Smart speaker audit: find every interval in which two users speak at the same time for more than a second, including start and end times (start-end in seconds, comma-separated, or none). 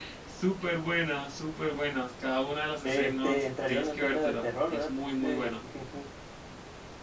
2.8-5.5